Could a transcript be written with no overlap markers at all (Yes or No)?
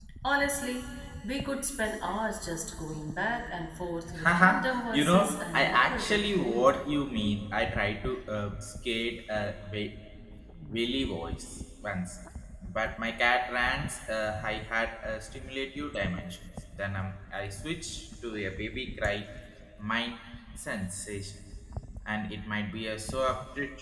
No